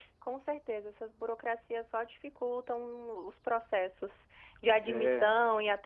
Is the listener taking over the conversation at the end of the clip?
No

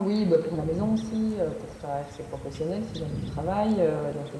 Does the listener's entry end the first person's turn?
No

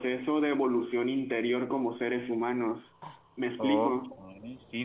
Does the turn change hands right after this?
Yes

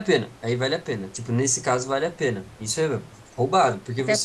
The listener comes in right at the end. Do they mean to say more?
No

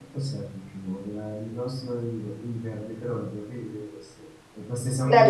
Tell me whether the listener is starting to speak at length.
Yes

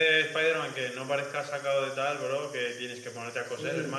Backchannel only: No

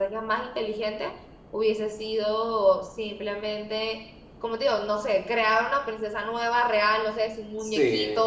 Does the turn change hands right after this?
Yes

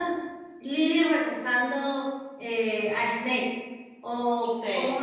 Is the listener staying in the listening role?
Yes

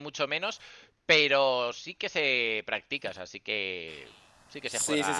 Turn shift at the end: Yes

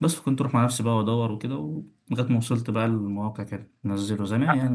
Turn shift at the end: No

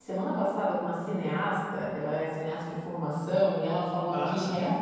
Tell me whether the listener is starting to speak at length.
No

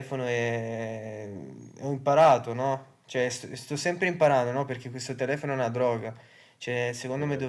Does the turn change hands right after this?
No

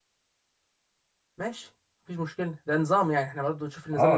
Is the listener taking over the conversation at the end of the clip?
Yes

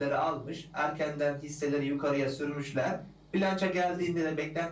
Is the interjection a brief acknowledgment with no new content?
Yes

